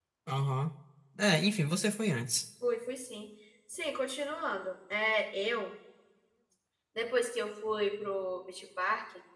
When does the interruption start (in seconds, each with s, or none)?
none